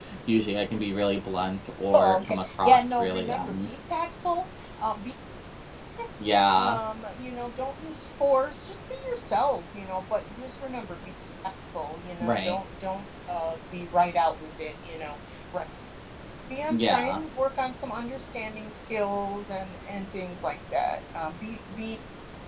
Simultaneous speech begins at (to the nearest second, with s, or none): 2 s